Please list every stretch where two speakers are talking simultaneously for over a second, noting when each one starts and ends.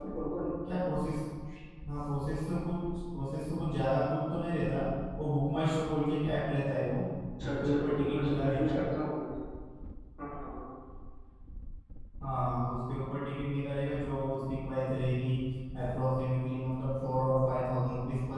7.4-8.7

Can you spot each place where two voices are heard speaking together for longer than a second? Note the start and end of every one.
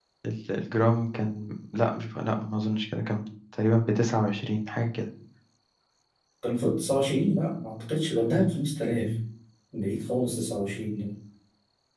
none

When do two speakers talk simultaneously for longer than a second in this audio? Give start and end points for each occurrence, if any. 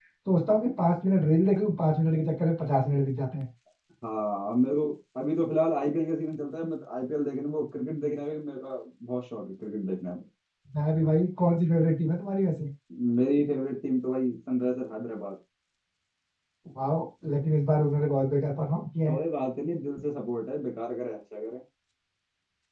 none

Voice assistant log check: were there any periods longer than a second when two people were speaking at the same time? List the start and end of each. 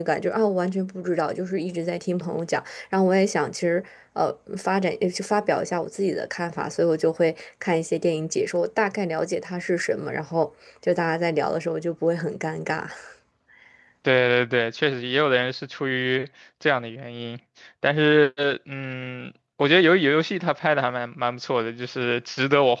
none

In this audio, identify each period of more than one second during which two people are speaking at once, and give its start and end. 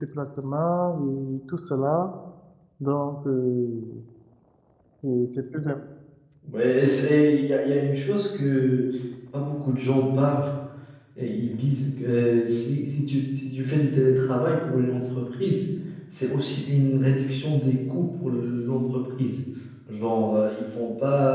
none

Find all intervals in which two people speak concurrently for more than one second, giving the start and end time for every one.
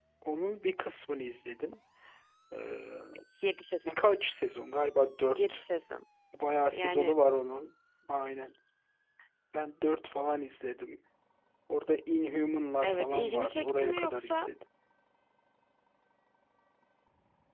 12.8-14.5

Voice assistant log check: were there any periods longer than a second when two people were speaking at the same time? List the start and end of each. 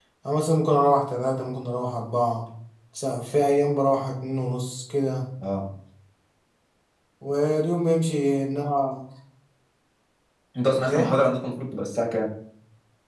none

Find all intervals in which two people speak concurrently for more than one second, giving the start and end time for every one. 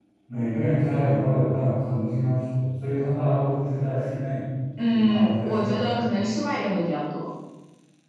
4.9-6.1

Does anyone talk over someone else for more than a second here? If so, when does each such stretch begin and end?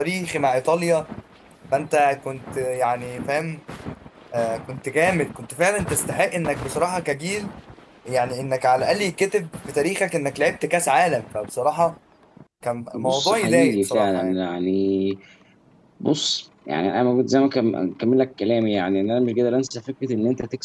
12.9-14.3

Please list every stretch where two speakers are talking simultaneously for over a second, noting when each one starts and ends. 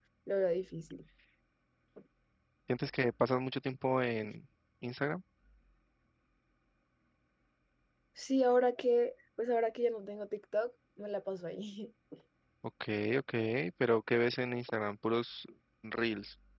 none

